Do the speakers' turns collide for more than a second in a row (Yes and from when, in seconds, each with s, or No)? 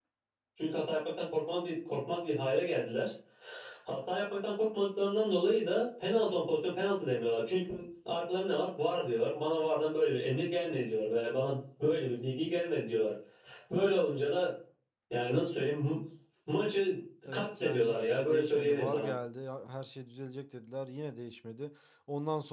Yes, from 17.3 s